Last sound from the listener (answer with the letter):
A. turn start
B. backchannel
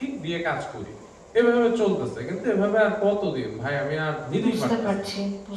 A